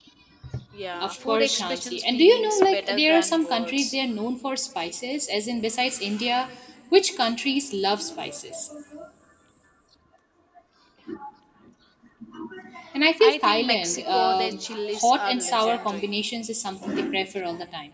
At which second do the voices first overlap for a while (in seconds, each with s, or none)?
1.0 s